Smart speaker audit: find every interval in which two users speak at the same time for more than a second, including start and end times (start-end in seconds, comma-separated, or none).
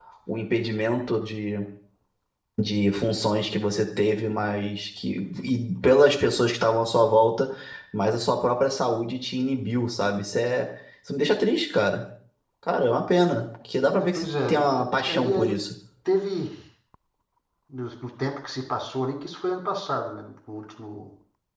14.2-15.6